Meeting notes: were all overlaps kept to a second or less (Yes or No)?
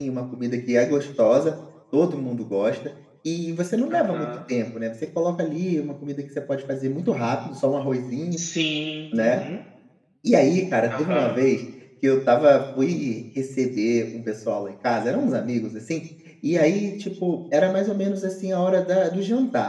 Yes